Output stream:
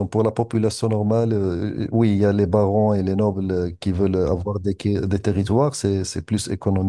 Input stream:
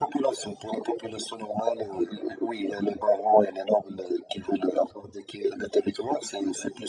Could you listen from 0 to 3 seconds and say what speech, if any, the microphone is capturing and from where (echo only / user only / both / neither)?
echo only